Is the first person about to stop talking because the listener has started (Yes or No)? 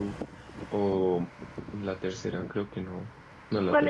Yes